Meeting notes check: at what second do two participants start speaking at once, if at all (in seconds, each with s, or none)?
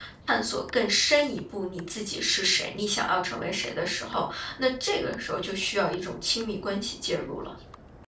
none